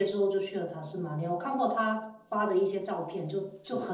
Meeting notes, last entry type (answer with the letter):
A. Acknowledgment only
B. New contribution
A